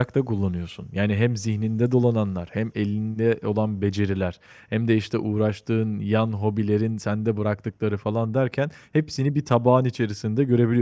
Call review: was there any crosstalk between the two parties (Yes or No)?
No